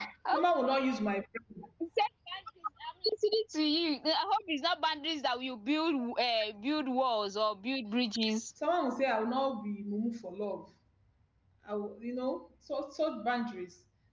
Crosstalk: none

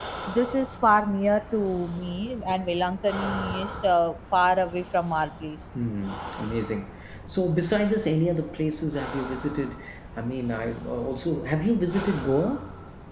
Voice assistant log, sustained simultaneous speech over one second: none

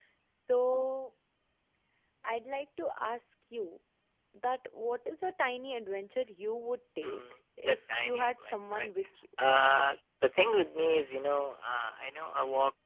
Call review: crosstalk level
present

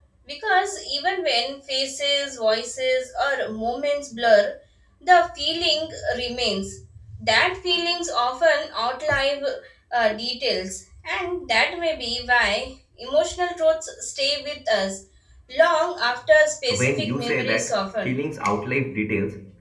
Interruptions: present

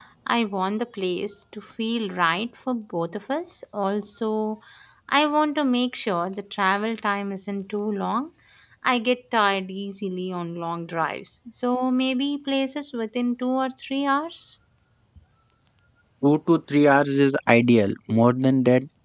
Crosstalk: none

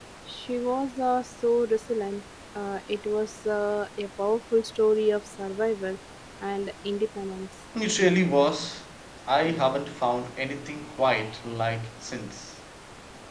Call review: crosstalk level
none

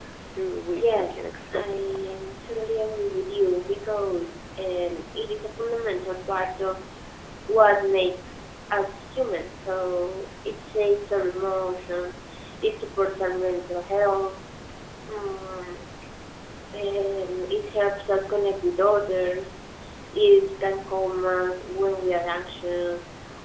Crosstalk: present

